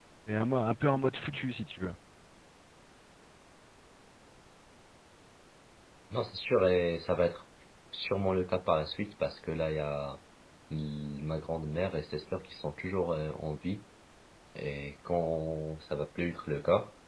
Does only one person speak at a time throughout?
Yes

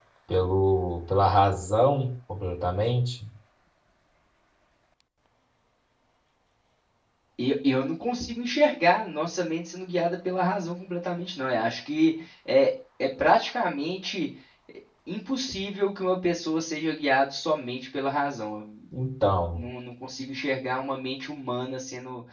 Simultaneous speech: No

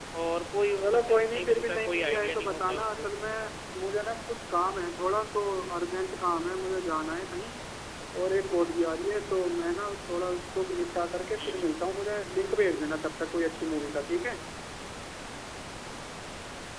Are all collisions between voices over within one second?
No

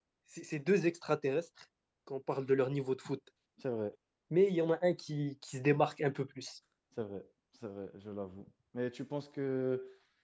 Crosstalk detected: No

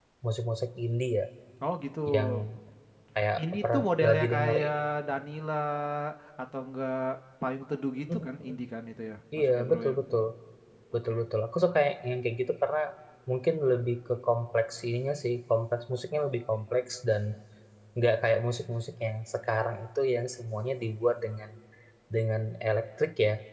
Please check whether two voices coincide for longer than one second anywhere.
Yes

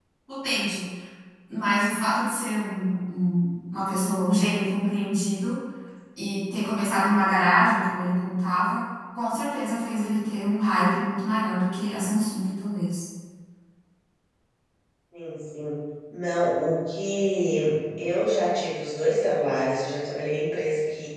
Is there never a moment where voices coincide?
Yes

